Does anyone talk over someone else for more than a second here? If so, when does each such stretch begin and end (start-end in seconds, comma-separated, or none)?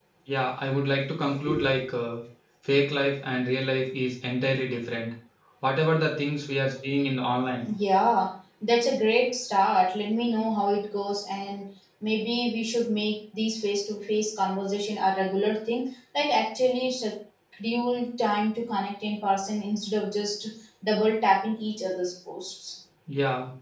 none